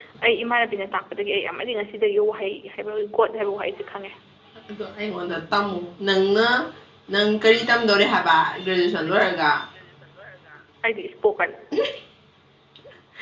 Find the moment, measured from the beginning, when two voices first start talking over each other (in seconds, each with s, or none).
none